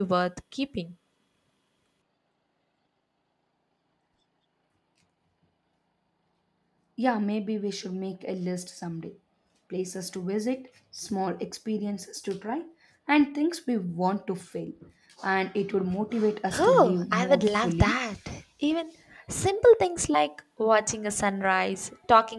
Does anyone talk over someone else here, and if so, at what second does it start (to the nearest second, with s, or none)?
17 s